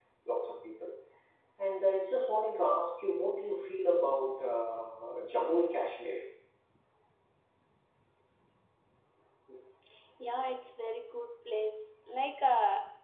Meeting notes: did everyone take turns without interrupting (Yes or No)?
Yes